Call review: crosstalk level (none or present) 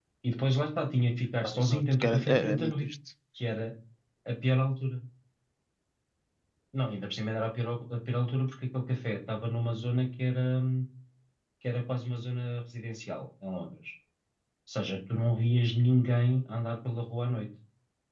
present